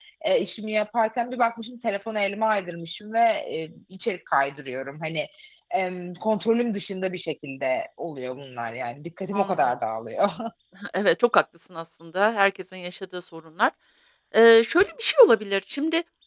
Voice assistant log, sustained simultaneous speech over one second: none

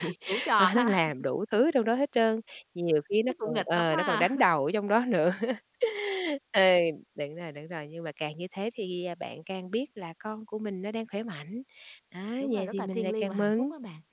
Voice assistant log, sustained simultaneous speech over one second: present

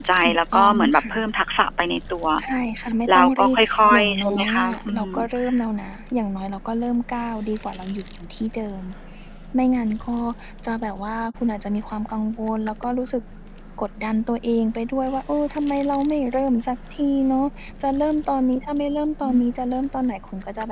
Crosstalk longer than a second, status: present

